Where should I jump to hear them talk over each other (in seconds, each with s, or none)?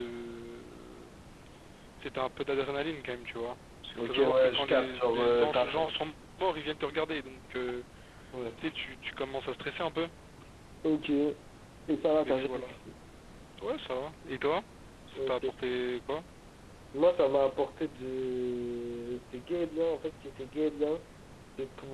4.0 s